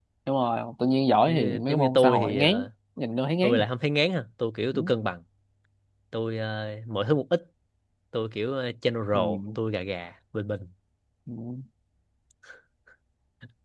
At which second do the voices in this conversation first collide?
1 s

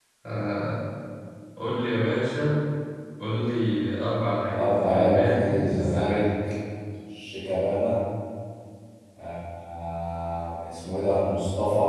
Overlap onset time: 5 s

